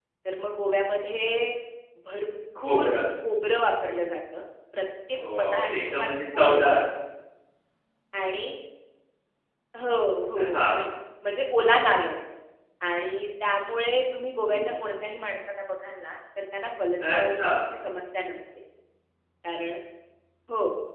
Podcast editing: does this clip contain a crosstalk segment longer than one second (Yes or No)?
Yes